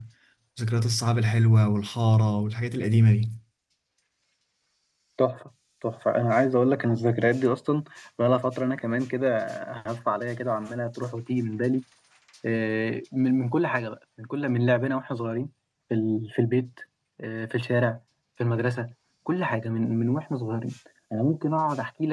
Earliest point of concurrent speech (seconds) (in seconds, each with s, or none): none